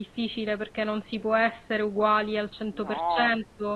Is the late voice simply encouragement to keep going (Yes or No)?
Yes